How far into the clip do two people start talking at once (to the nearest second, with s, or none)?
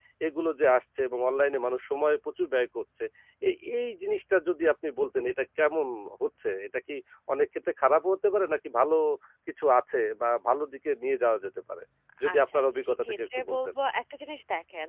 12 s